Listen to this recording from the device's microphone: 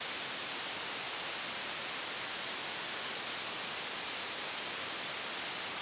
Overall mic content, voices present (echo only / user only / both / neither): neither